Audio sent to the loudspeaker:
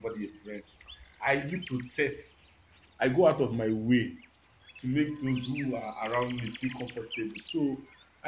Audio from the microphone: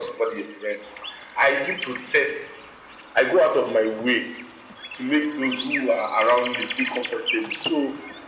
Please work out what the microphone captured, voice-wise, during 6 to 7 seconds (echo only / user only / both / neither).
echo only